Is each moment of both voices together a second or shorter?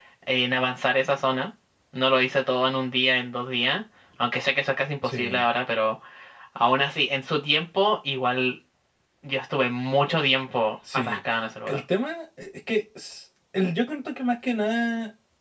Yes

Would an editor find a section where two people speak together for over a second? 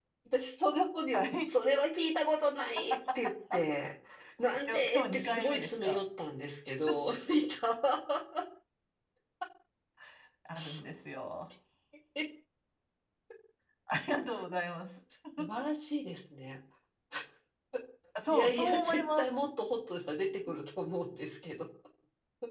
Yes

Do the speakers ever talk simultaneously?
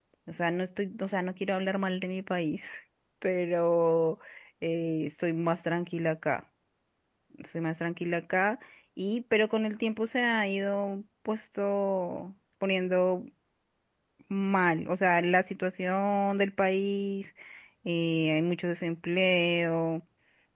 No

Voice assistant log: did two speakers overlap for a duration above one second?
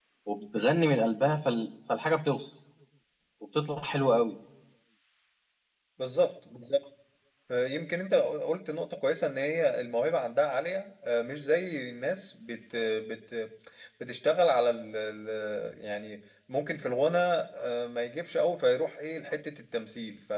No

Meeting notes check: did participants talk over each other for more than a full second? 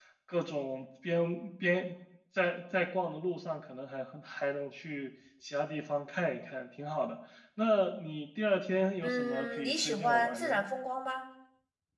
Yes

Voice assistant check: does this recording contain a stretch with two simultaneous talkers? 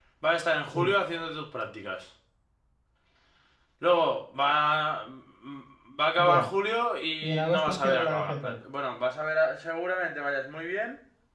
Yes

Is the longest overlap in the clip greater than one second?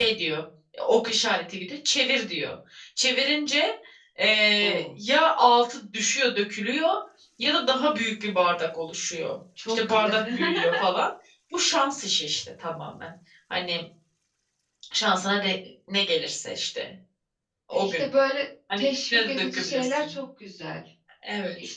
Yes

